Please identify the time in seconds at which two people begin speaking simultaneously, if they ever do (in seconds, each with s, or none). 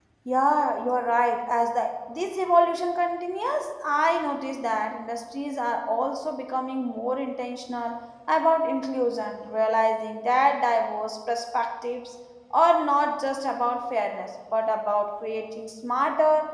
none